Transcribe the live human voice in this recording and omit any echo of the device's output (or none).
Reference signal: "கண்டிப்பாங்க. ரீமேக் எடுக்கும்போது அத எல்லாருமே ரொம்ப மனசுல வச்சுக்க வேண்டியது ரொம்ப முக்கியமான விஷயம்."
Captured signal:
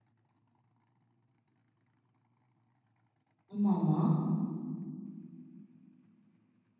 ஆமாமா.